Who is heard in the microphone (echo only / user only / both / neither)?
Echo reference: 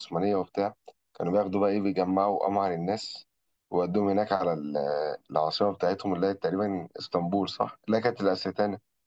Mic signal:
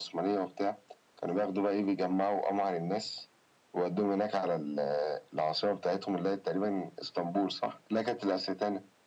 echo only